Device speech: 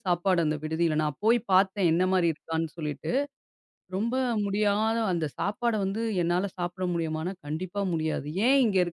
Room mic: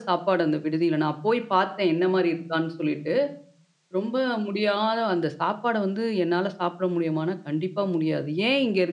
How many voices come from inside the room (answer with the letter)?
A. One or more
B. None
B